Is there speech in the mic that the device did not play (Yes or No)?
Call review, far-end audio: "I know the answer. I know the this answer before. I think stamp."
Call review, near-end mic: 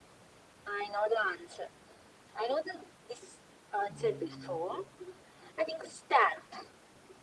Yes